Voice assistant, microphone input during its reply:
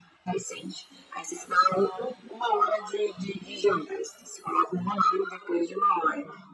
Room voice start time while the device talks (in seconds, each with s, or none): none